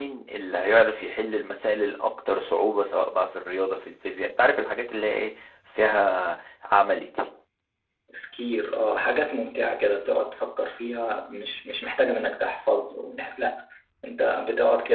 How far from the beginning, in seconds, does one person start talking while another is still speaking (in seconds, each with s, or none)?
none